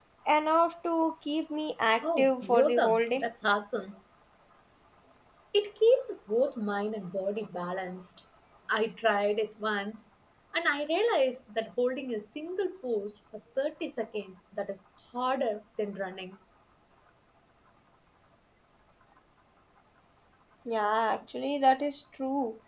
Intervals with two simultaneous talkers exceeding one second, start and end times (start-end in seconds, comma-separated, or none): 2.0-3.2